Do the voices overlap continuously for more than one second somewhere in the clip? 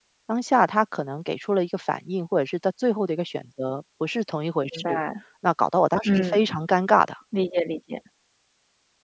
No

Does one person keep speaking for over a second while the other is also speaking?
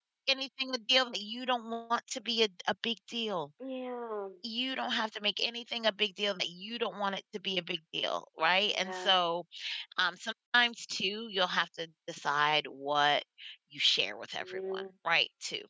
No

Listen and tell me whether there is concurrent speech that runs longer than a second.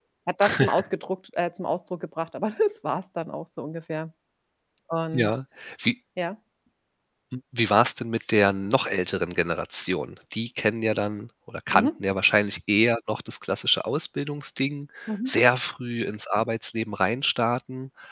No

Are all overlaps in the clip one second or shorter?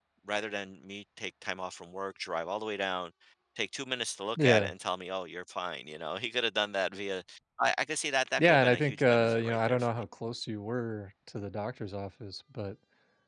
No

